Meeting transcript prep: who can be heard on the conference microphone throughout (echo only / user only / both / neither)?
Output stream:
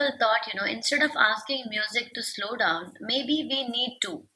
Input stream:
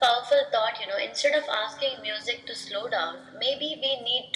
echo only